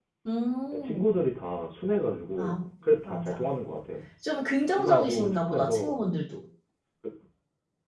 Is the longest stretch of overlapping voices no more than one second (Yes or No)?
No